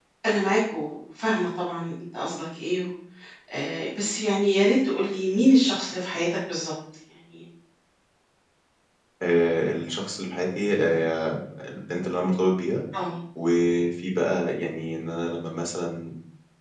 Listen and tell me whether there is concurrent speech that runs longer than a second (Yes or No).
No